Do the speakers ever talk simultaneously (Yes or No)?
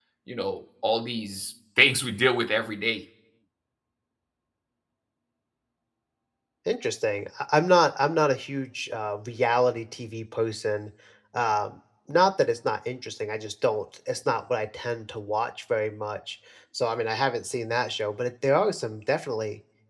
No